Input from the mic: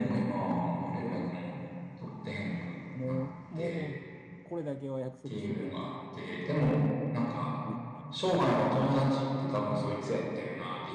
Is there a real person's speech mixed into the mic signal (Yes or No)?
Yes